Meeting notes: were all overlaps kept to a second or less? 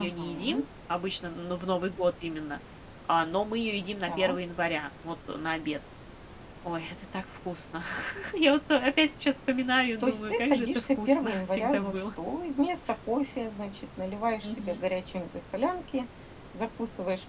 No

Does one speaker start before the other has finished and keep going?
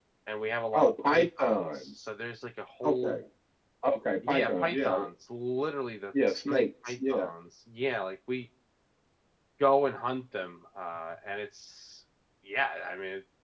Yes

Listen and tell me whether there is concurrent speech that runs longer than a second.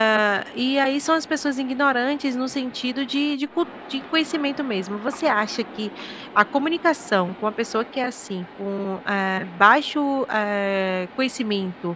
No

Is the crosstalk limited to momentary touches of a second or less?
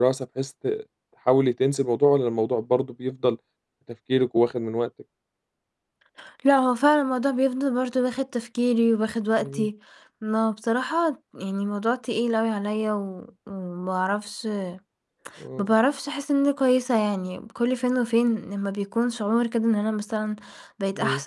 Yes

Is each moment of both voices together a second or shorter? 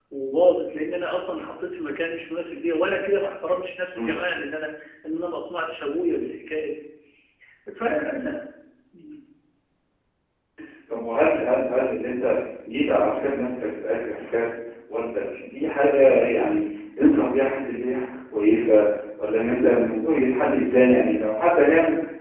Yes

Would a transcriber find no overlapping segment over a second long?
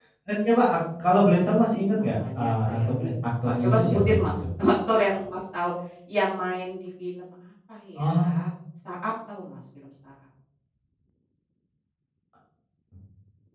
No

